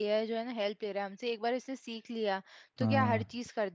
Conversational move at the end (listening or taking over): listening